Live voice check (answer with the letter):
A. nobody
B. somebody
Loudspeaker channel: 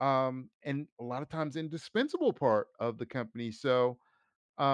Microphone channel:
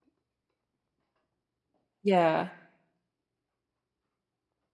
B